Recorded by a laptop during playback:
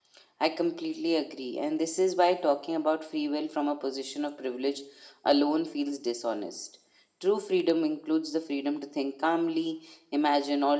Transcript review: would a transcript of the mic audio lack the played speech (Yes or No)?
No